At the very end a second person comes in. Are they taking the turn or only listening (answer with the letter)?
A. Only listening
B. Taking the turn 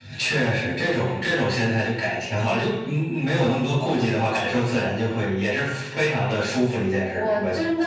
B